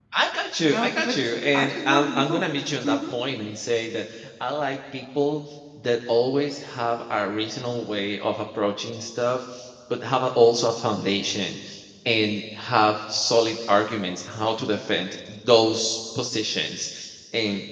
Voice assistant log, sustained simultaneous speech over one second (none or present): present